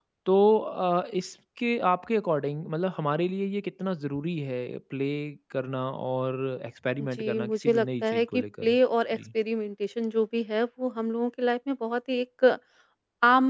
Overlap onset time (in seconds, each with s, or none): 7.0 s